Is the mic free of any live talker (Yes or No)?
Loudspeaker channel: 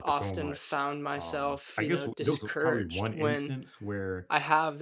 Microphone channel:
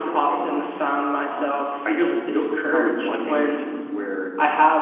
Yes